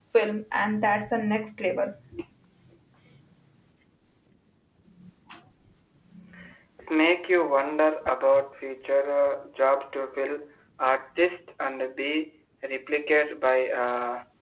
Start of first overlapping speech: none

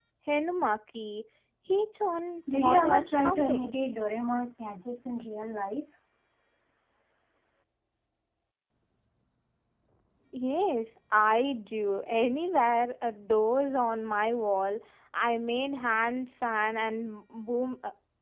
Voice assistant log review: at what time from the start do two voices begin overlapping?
2.5 s

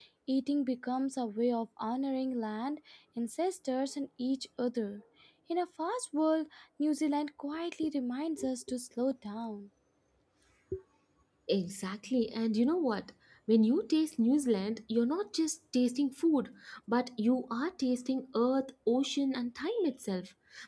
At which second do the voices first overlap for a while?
none

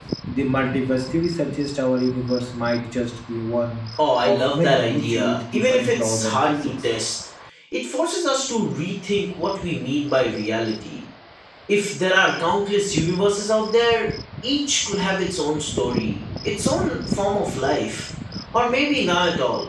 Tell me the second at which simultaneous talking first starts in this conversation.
4.2 s

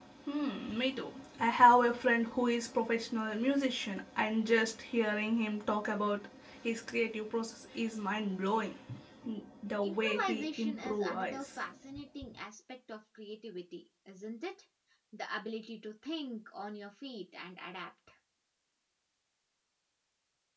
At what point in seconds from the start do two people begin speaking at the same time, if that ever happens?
9.8 s

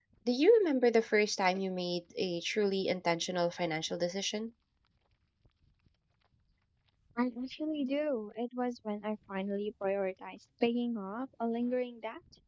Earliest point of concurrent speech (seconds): none

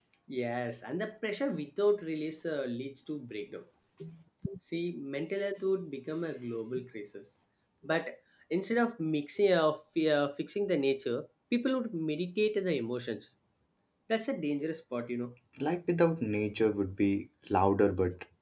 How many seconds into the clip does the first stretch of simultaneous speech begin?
none

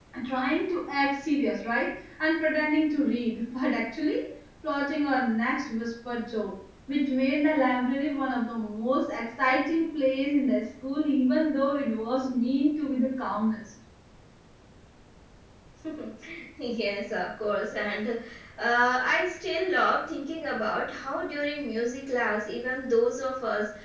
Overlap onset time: none

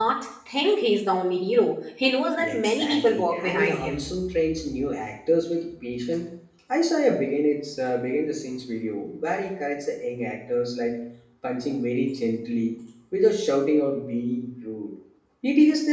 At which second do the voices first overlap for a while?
2.4 s

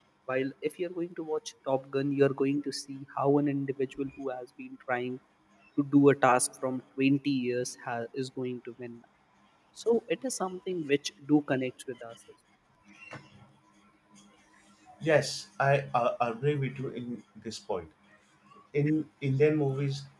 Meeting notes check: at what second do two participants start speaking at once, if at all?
none

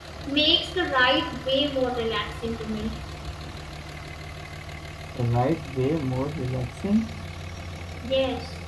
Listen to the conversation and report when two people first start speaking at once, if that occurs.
none

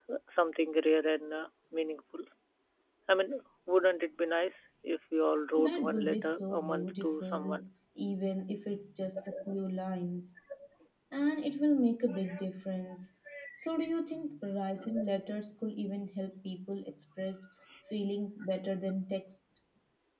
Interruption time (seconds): 5.6 s

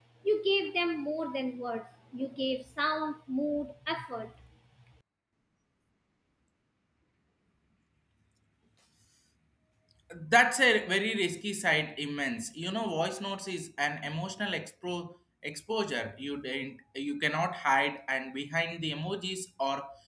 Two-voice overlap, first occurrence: none

